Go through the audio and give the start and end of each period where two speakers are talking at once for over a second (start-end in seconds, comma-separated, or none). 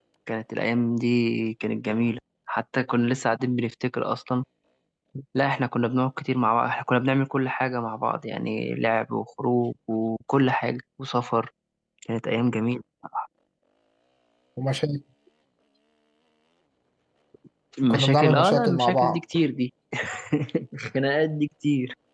17.9-19.2